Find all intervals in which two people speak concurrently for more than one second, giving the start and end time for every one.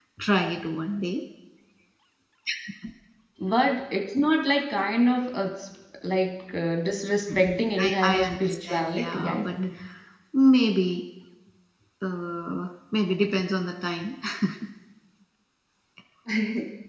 7.3-9.6

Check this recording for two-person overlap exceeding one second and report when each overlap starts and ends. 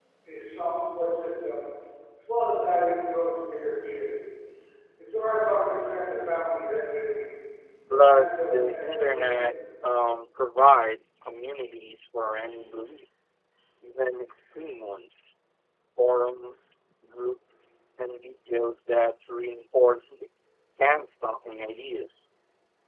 7.9-9.5

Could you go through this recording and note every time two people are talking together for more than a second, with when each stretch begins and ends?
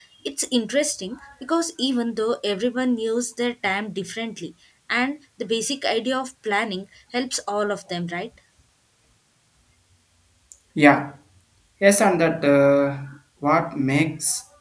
none

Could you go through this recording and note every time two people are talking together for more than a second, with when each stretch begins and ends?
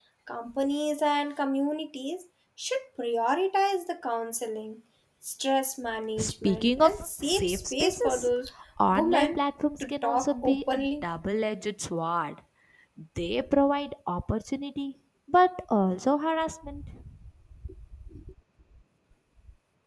6.2-8.3, 9.8-11.1

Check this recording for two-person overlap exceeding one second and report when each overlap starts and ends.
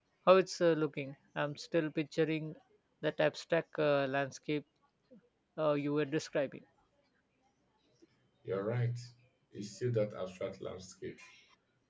none

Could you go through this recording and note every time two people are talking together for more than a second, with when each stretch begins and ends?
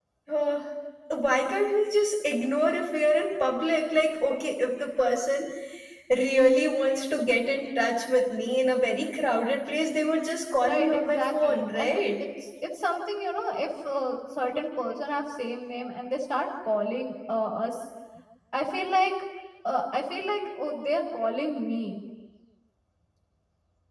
10.7-12.0

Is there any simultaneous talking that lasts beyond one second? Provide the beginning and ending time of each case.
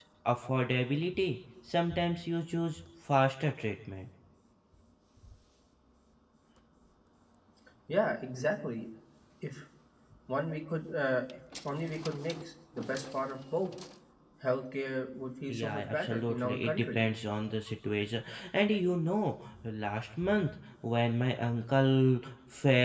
15.5-17.0

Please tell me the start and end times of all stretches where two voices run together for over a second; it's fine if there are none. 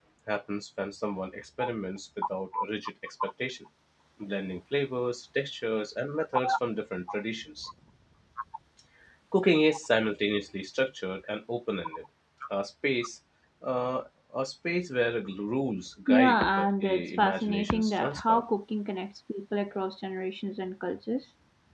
16.1-18.4

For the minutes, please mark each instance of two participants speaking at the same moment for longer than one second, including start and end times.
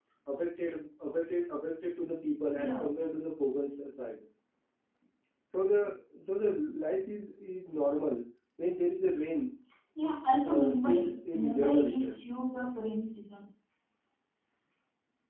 10.4-12.2

